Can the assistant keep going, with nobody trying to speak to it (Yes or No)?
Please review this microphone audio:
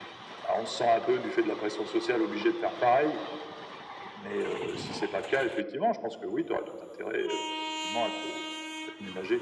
Yes